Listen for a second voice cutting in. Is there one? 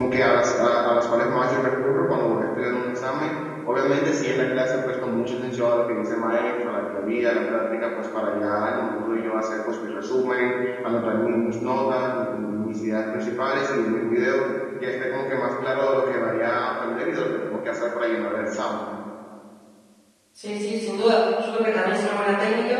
No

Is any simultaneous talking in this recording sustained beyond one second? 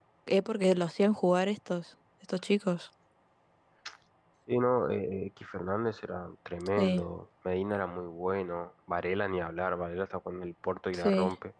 No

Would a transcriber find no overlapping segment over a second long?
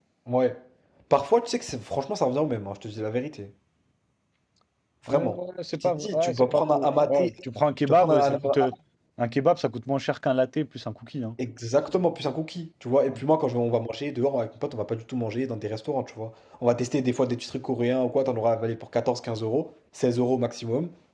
No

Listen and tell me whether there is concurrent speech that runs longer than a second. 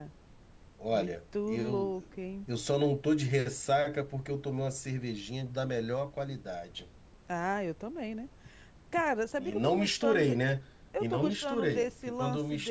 Yes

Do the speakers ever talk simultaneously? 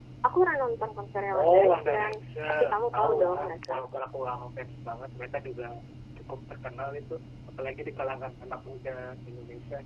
Yes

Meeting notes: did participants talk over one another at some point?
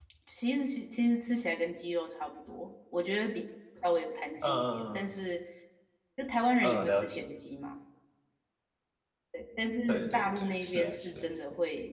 Yes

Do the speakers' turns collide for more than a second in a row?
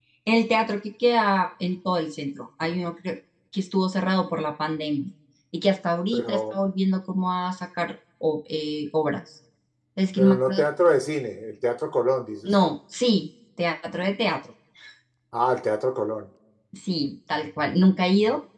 No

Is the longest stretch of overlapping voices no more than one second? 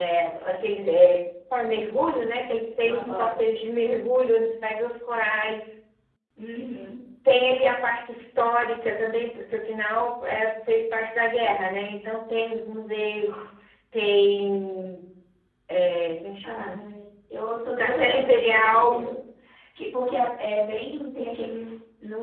No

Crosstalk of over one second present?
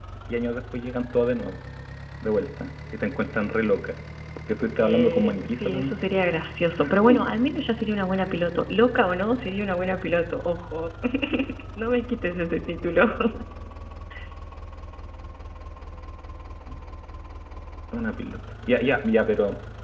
Yes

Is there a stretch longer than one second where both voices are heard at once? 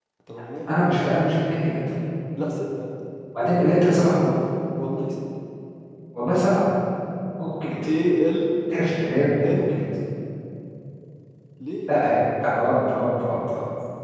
No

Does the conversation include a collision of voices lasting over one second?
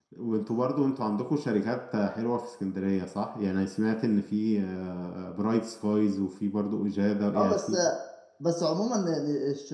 No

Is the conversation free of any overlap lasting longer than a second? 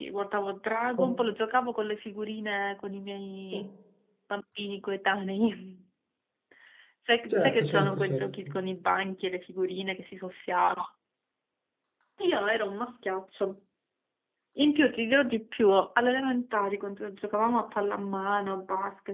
No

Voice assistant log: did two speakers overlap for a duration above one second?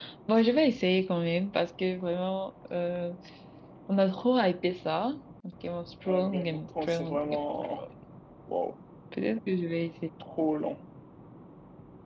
Yes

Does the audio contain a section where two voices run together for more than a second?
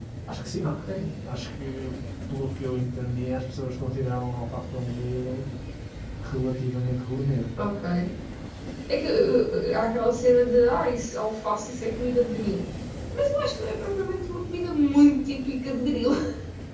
No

